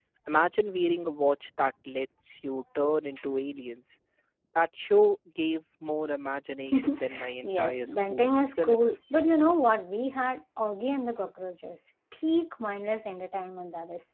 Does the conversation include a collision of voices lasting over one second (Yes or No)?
Yes